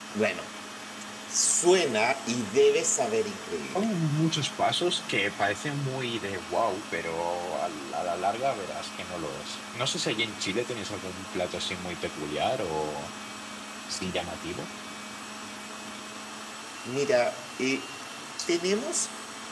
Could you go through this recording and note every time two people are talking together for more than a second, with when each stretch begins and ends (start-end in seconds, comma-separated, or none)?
none